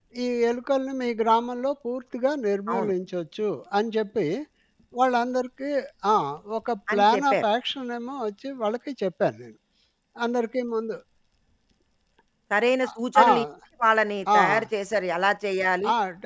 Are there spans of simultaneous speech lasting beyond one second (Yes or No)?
No